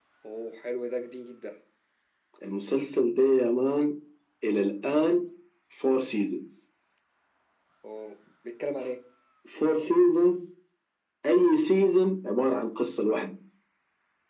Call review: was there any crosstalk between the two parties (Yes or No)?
No